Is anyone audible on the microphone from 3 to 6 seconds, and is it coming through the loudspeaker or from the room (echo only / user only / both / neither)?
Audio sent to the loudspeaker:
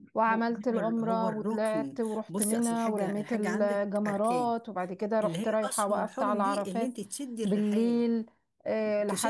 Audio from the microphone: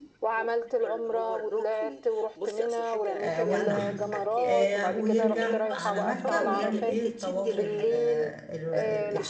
both